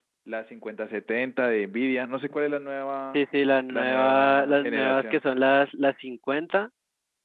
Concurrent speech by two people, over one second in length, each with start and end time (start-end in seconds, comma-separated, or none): 3.7-5.2